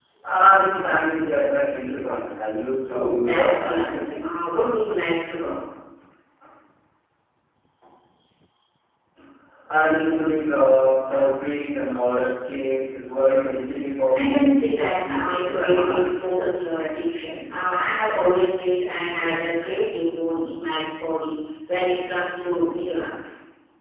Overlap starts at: 2.9 s

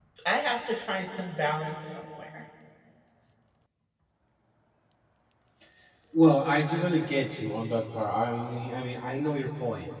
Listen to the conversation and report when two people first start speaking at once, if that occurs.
none

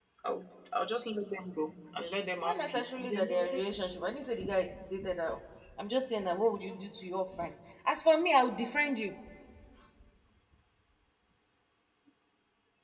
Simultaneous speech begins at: 2.4 s

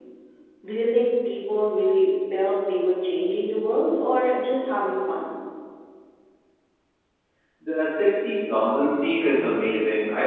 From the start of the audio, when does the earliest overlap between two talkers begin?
none

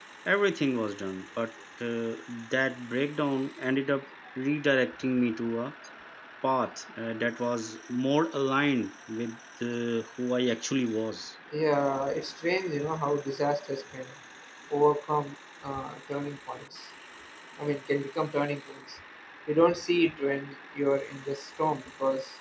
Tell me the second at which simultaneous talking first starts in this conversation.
none

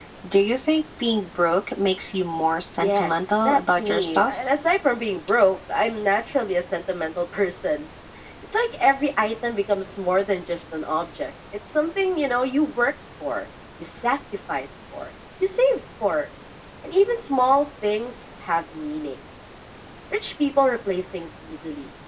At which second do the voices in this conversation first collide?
2.8 s

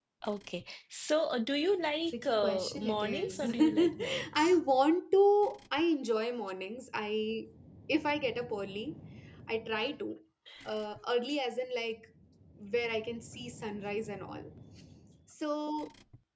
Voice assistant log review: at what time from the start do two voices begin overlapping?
2.0 s

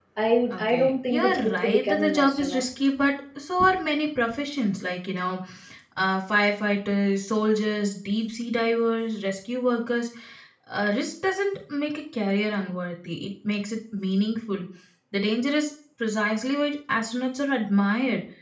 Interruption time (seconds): 0.5 s

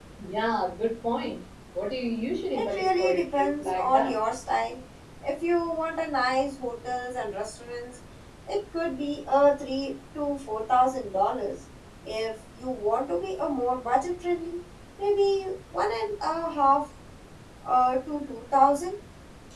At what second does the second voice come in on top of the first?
2.5 s

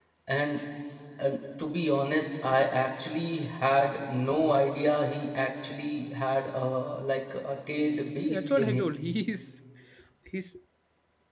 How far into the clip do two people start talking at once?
7.7 s

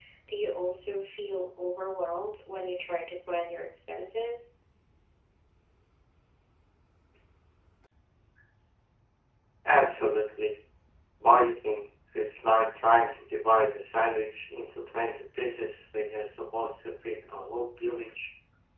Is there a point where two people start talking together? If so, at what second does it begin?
none

